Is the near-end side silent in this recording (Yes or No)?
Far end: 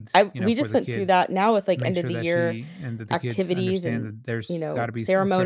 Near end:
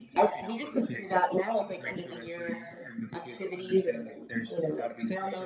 Yes